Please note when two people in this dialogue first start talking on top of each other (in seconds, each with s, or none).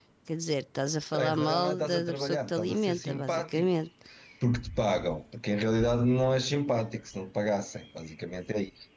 1.1 s